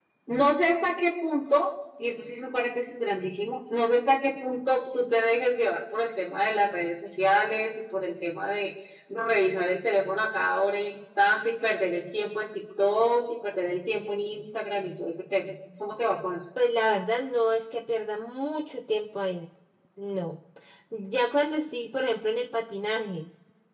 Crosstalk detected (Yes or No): No